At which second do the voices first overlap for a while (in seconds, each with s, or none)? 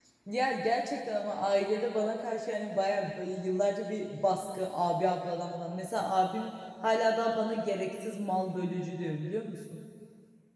none